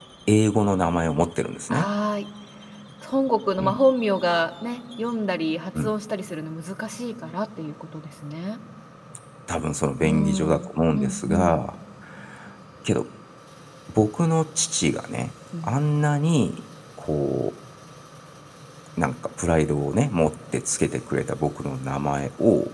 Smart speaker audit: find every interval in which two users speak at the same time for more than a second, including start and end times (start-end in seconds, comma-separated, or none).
10.0-11.6